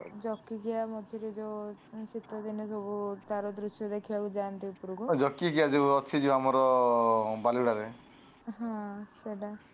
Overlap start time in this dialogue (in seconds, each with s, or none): none